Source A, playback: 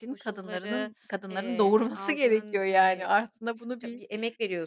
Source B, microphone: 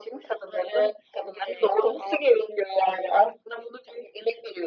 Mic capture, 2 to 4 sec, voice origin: echo only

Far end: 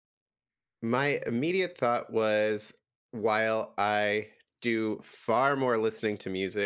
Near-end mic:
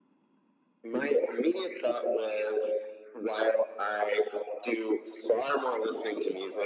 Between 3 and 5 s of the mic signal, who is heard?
echo only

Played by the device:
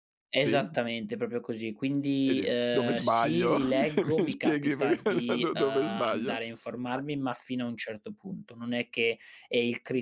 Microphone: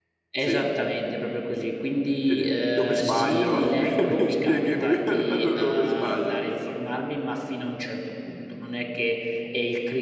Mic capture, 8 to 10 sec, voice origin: echo only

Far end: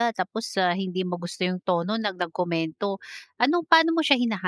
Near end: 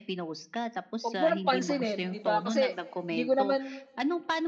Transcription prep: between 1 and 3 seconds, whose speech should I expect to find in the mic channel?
both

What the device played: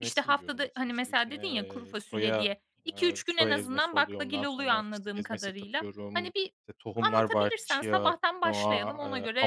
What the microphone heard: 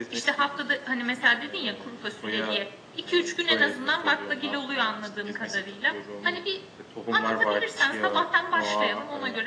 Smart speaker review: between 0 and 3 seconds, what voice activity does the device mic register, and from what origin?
echo only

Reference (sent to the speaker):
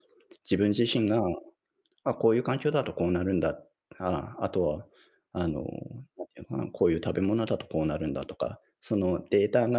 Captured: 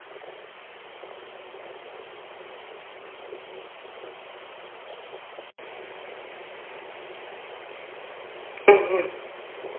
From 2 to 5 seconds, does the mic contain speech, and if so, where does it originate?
neither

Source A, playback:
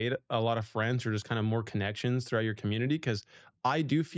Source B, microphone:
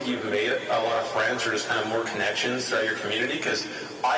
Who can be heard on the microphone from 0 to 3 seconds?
echo only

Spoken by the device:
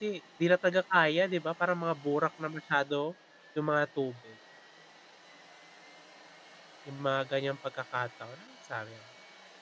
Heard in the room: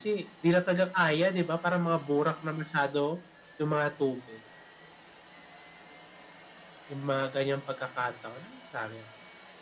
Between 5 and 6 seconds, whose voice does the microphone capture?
neither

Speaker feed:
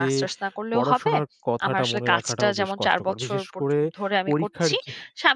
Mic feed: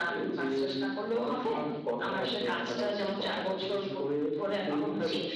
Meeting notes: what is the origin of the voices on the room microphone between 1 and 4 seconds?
echo only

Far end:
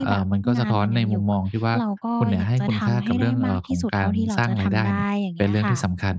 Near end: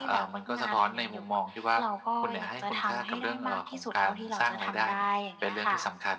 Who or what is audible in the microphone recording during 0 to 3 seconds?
echo only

